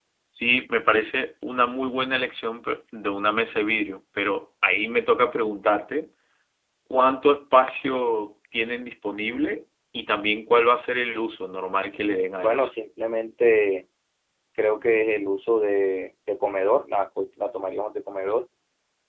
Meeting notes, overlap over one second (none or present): none